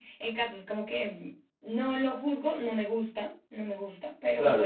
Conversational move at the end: taking over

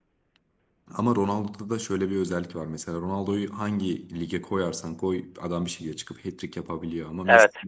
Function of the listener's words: taking over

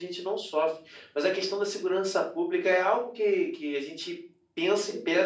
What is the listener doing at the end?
listening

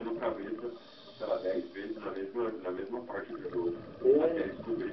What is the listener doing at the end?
listening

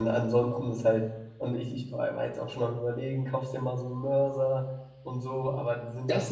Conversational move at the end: taking over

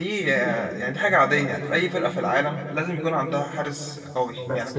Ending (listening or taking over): taking over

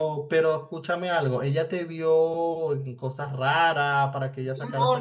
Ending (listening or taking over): taking over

